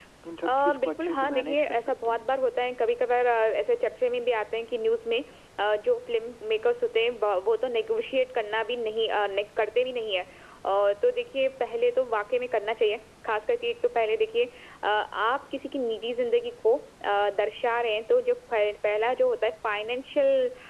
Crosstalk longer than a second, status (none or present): present